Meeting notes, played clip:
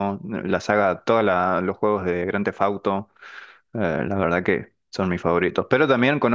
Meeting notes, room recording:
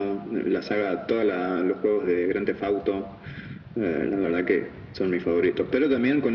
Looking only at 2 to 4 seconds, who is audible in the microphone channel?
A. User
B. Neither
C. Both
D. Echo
D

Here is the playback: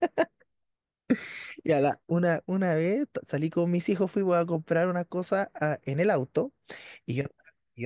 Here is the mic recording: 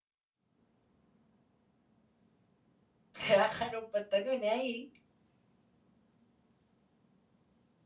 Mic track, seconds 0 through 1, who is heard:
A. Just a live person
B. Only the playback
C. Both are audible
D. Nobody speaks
D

